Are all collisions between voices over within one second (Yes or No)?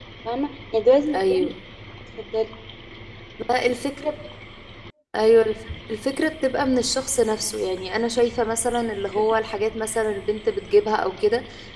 Yes